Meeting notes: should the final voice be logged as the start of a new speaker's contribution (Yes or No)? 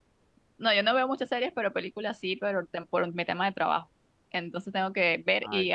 No